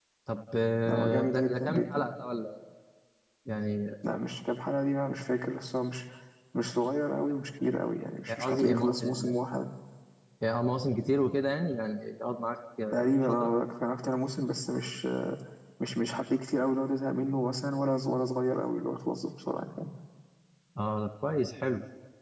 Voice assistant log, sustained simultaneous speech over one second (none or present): present